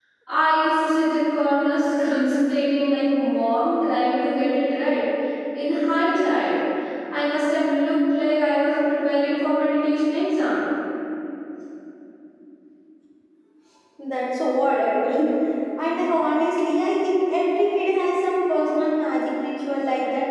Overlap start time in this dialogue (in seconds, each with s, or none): none